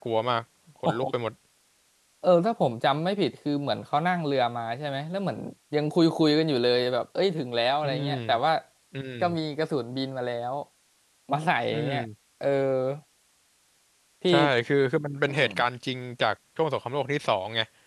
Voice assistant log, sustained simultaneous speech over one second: none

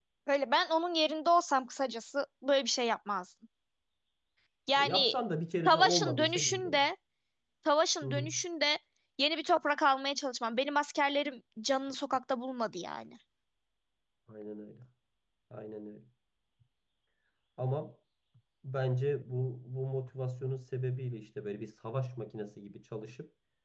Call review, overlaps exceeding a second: present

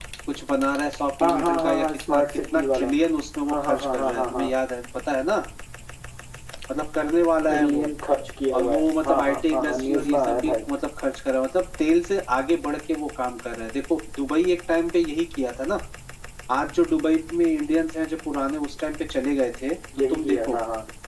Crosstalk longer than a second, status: present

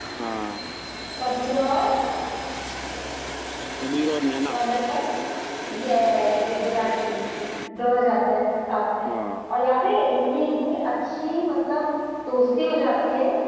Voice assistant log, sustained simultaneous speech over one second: none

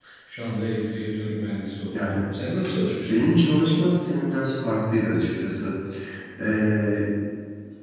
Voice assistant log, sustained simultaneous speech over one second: none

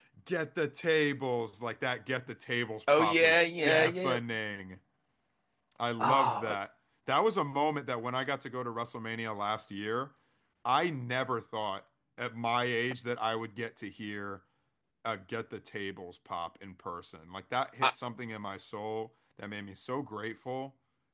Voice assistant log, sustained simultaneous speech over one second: present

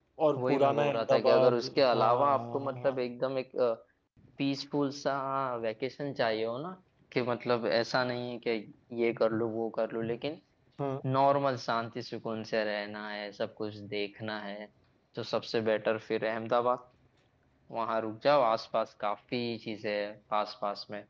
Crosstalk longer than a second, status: present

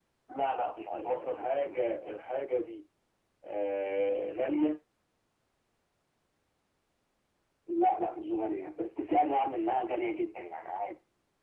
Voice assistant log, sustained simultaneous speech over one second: present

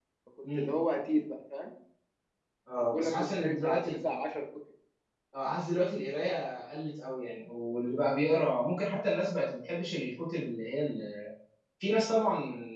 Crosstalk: present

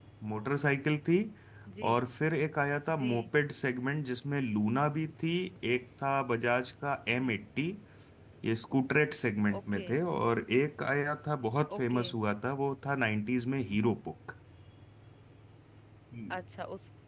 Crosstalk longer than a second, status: none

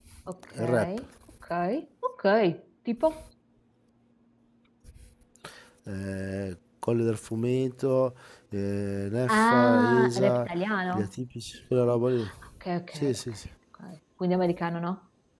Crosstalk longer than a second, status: present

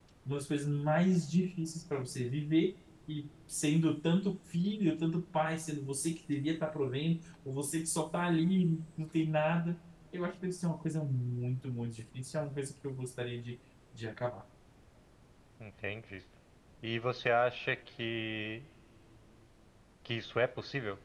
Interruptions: none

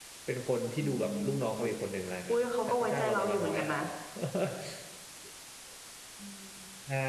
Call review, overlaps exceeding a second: present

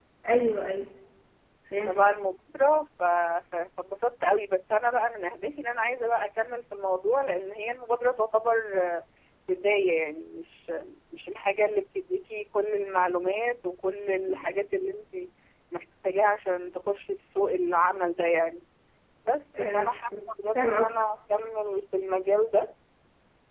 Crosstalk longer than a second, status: none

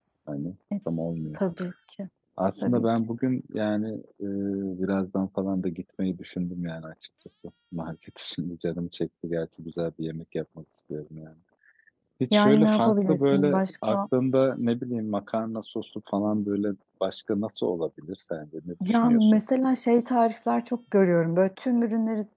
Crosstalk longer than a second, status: present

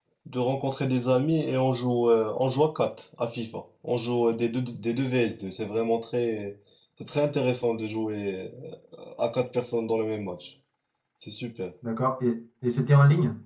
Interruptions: none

